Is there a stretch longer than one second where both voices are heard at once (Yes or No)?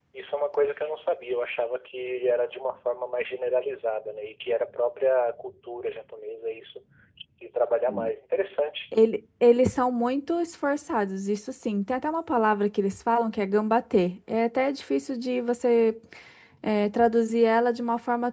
No